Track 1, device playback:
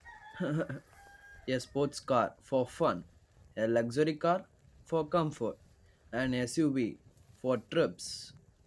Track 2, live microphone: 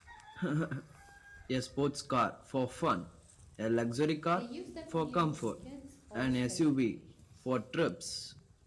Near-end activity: present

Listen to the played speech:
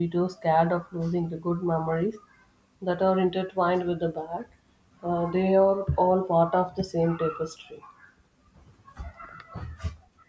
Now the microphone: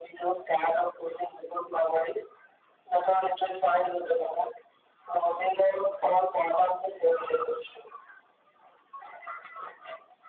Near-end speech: none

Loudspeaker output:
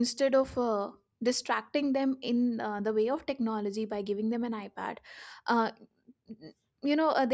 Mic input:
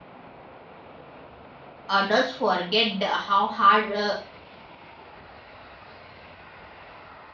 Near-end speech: present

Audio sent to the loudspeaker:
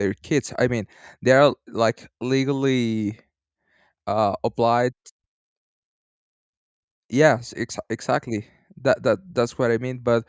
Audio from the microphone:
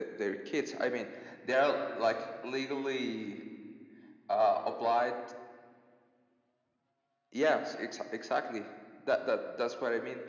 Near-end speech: none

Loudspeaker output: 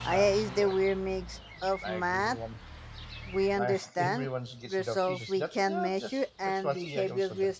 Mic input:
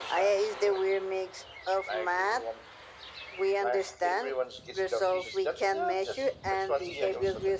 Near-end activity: none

